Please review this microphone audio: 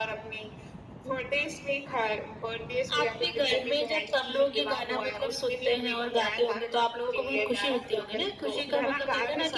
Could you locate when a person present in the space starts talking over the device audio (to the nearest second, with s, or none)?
none